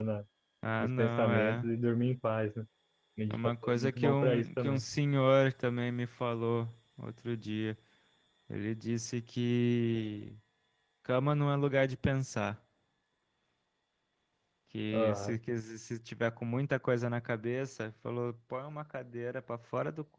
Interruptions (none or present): present